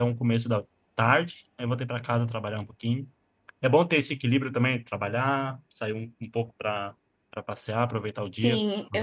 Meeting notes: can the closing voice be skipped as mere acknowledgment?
No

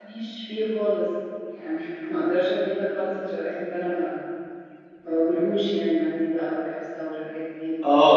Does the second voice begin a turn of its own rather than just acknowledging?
Yes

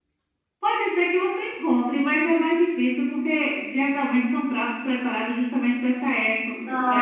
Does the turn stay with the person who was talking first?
Yes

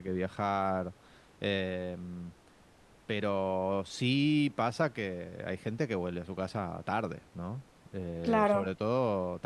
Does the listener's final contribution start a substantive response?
No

